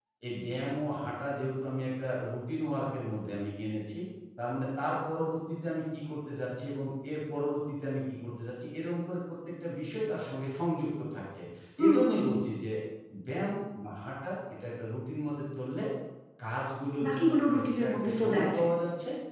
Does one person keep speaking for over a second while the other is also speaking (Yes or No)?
Yes